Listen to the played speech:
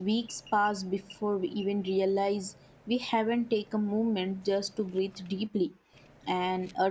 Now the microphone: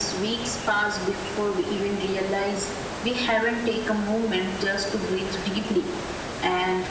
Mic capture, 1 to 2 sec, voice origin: echo only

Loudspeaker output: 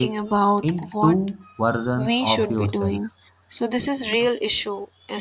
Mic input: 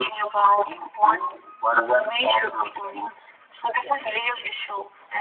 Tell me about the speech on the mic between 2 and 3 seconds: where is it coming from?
echo only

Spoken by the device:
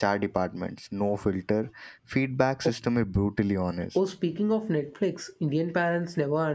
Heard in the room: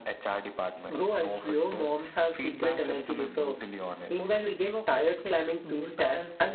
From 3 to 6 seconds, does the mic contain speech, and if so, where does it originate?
both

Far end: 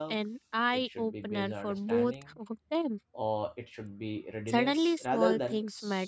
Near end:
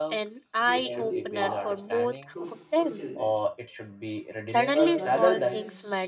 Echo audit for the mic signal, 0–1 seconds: both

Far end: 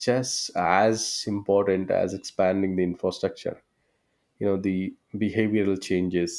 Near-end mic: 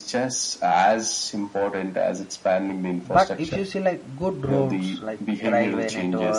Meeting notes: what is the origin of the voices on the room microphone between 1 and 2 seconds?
echo only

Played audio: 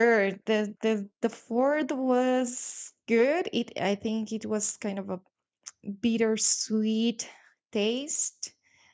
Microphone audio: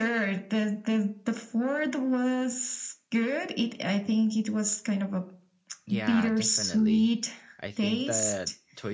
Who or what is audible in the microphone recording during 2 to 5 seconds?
echo only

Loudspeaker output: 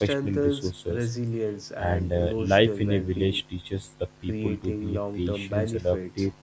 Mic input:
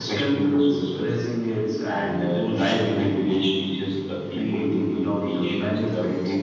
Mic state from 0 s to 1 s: echo only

